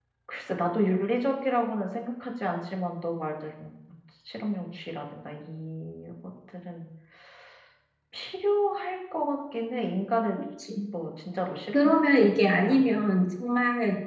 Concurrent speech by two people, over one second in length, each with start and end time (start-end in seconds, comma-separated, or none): 11.7-13.0